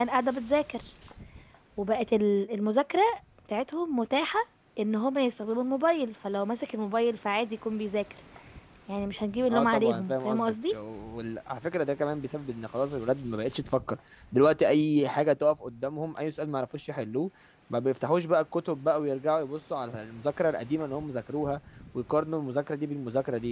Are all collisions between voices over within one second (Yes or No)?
No